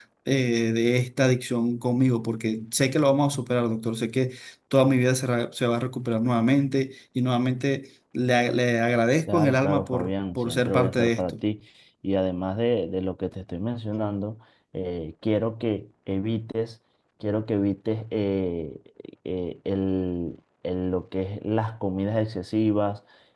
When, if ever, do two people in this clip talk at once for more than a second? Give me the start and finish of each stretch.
9.3-11.3

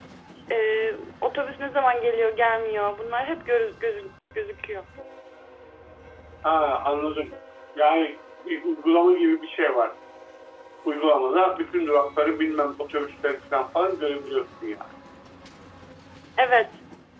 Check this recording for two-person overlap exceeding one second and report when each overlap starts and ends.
none

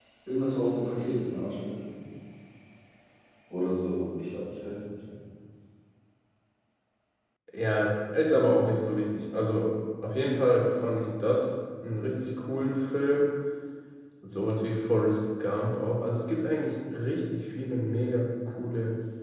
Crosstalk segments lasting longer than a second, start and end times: none

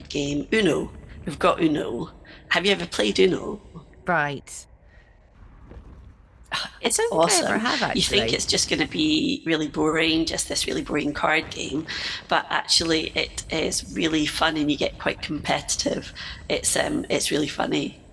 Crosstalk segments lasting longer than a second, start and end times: 6.8-8.4

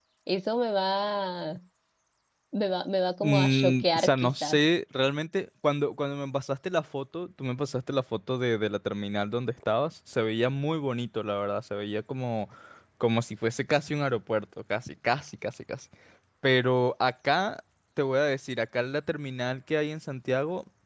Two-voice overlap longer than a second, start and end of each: 3.2-4.6

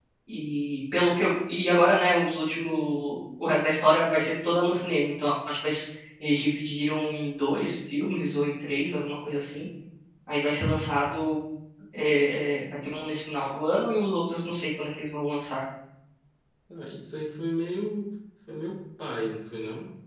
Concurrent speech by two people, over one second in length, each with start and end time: none

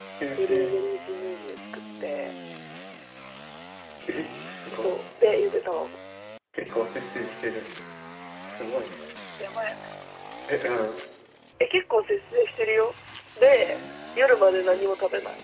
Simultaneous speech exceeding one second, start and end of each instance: none

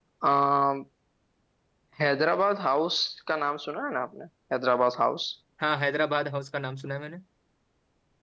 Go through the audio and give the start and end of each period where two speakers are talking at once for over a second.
none

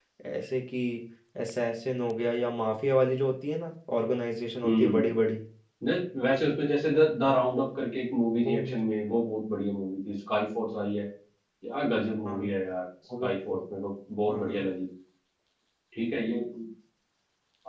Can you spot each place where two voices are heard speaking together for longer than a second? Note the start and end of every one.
none

